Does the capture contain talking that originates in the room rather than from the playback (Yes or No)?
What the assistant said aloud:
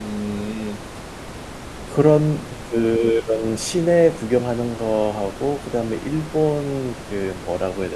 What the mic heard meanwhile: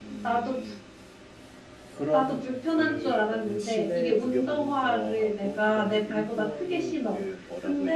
Yes